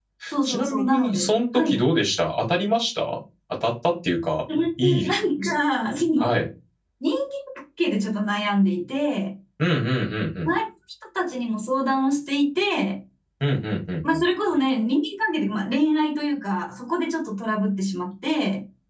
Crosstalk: present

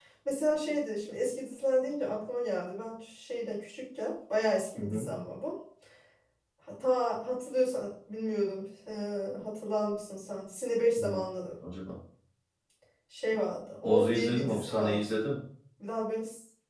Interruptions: present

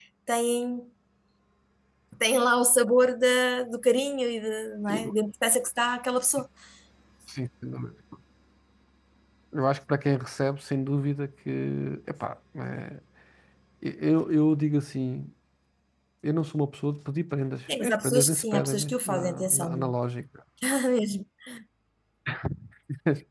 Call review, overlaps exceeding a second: present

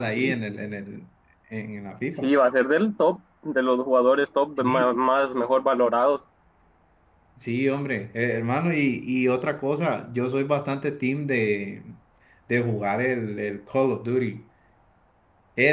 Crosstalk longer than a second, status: none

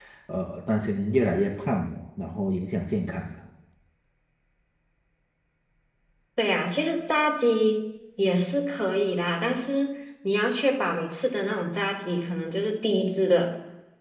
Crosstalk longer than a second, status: none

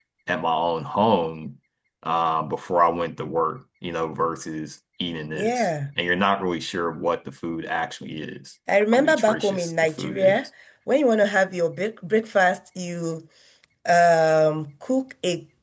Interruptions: present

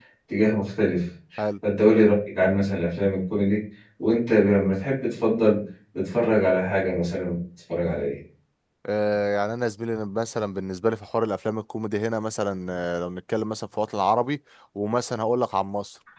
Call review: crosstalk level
none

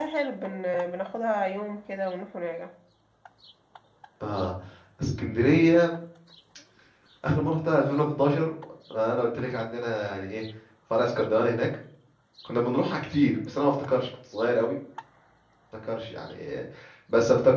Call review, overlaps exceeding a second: none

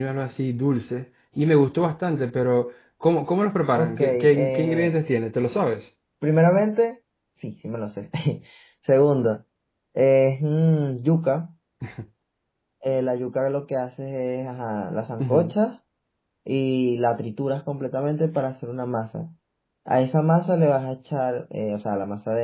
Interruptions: present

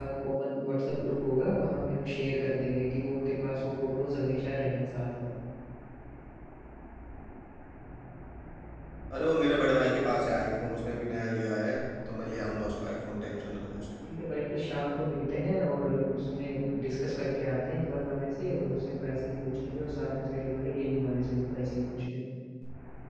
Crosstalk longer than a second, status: none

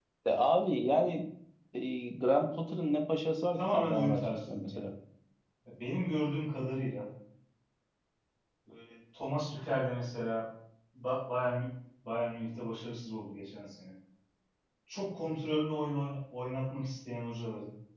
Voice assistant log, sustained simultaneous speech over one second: present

